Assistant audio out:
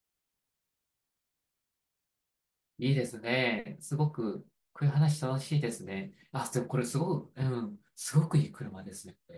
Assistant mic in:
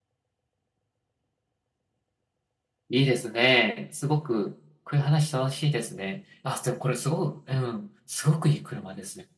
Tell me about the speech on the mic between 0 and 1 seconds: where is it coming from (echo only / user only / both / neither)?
neither